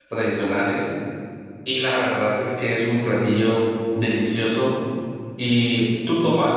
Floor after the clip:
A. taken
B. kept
B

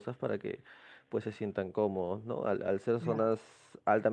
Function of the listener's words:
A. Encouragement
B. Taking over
A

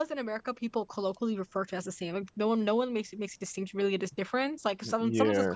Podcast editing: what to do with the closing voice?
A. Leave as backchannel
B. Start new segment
A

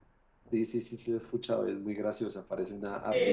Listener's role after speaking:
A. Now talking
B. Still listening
A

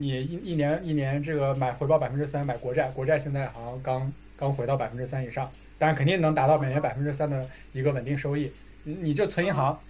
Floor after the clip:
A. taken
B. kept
B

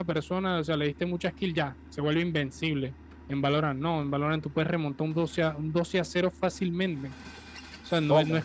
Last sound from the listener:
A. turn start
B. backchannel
B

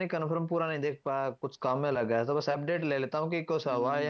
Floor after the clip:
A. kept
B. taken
B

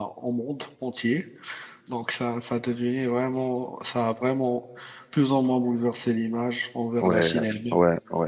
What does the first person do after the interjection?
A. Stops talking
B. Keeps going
A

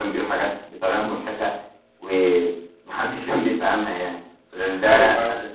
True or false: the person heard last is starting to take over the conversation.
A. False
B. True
A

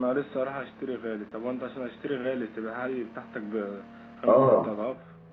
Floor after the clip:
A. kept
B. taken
B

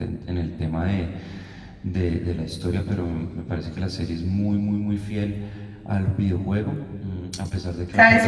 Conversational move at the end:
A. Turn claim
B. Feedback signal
A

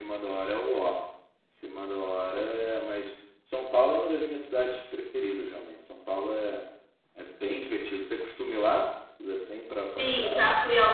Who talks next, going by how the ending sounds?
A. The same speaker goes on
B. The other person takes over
B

